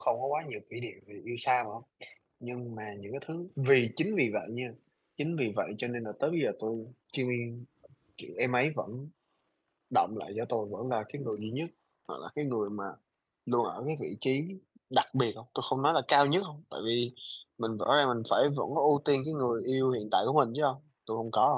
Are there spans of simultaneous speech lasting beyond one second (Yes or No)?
No